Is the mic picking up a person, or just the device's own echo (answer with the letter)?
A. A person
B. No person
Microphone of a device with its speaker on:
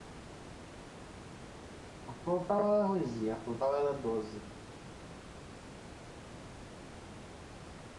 A